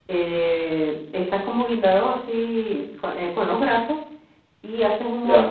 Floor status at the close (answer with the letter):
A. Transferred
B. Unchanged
B